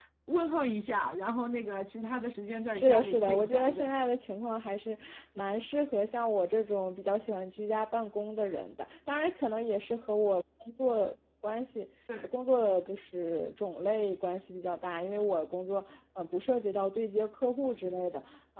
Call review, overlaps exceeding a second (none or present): present